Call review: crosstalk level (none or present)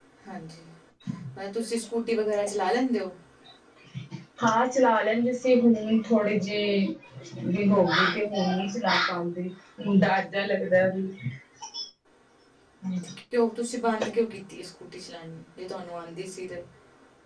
none